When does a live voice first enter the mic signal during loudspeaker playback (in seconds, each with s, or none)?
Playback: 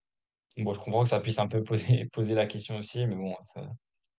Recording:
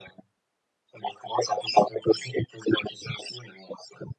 none